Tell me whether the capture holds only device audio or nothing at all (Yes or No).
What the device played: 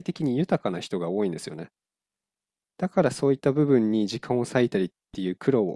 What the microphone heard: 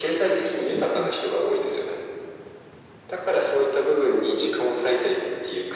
No